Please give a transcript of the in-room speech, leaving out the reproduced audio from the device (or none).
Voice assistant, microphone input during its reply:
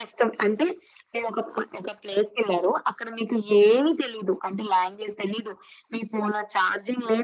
none